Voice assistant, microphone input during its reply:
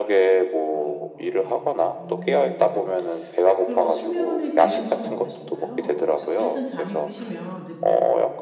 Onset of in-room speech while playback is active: 0.7 s

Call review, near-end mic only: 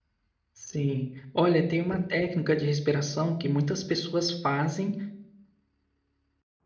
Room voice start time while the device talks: 0.6 s

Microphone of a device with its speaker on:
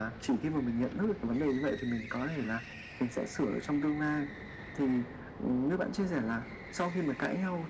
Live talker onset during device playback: none

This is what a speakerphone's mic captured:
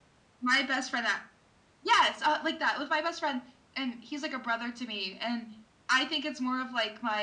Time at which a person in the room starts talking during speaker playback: none

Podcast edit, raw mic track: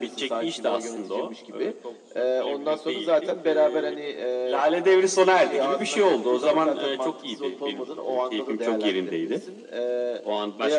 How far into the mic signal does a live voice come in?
none

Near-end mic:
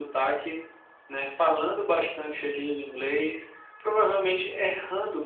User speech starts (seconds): none

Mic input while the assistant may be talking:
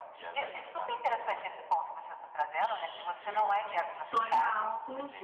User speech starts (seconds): 3.9 s

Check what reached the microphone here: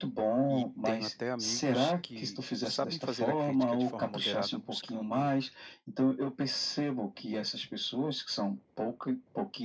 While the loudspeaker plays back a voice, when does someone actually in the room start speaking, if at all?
0.5 s

